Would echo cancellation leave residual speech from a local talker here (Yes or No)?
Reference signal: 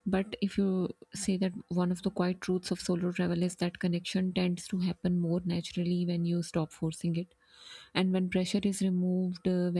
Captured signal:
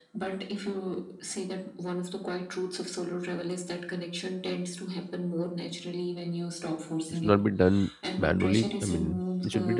Yes